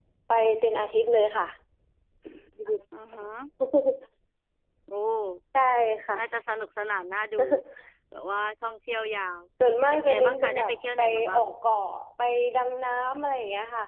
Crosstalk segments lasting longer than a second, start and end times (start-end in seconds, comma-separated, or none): 9.9-11.4